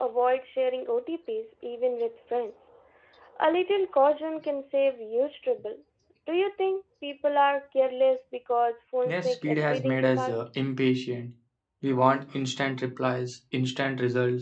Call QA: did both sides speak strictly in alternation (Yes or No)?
No